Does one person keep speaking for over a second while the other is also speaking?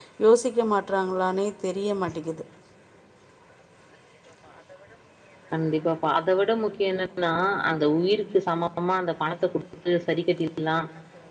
No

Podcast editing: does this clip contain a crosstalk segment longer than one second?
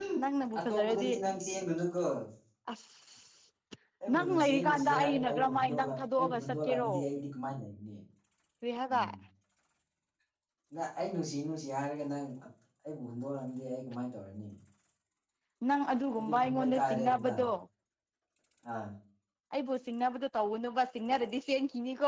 Yes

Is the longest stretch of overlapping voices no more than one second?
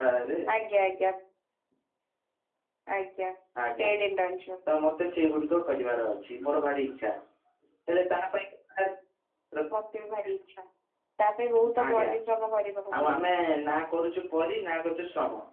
Yes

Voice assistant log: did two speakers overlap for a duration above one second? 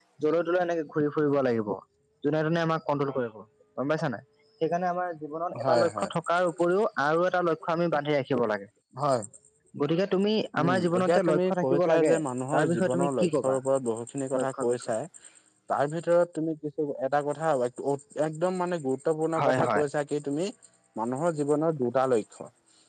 Yes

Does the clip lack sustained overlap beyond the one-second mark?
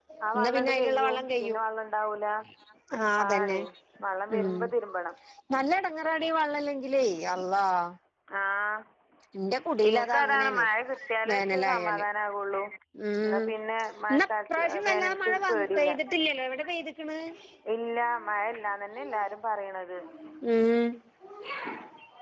No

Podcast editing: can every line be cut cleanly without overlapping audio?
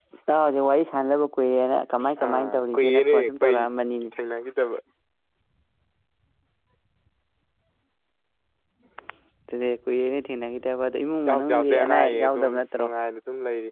No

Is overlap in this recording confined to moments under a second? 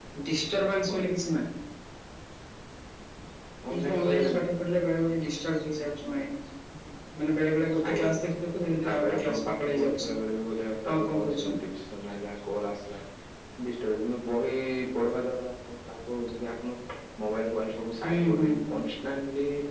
No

